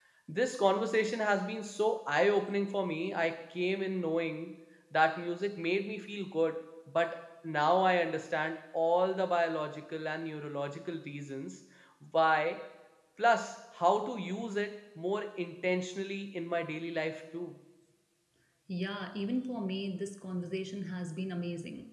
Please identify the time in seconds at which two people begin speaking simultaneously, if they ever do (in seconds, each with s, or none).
none